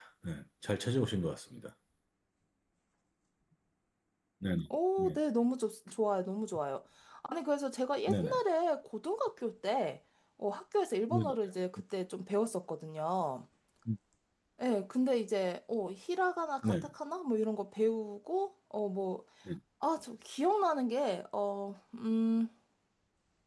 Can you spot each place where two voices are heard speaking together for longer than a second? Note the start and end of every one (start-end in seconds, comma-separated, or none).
none